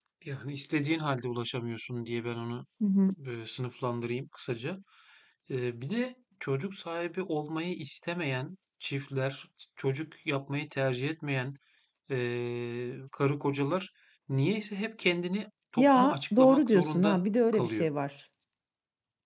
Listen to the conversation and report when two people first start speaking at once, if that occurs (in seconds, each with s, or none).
15.8 s